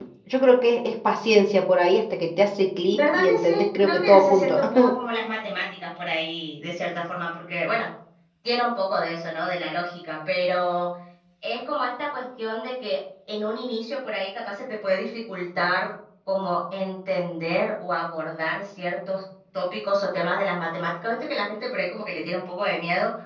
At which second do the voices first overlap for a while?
3 s

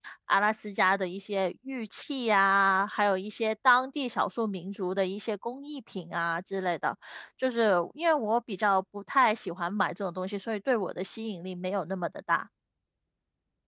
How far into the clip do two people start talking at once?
none

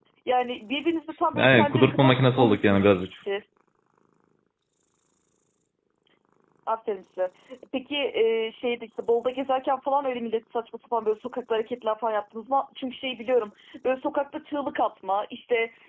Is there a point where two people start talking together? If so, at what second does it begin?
1 s

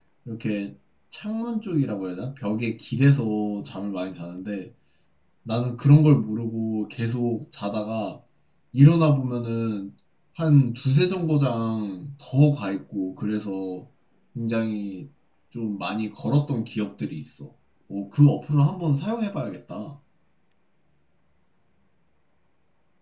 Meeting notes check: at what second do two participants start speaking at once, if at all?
none

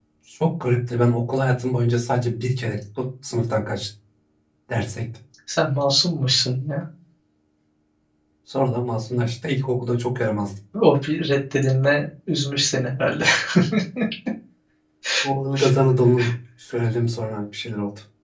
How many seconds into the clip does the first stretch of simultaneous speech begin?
none

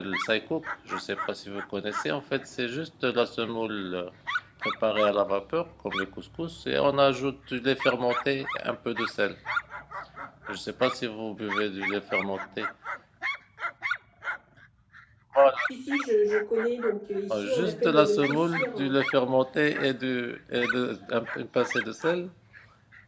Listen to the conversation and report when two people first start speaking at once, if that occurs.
17 s

